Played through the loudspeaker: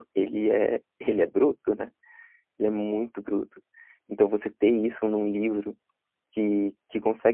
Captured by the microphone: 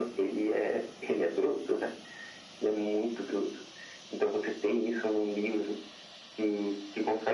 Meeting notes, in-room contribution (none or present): none